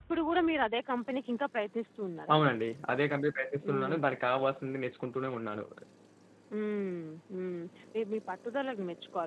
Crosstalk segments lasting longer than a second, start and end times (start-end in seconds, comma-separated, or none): none